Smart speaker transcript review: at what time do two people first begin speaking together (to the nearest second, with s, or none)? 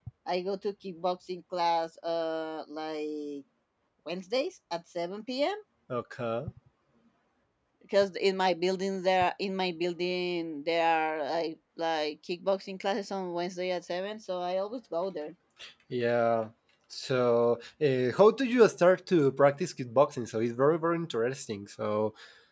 none